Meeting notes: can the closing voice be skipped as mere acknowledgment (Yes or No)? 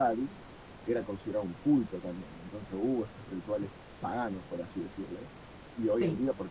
Yes